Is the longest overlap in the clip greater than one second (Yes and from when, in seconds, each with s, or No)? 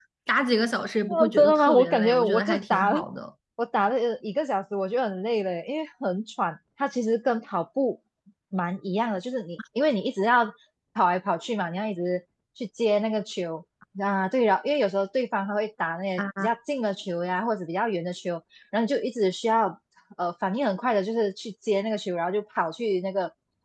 Yes, from 1.1 s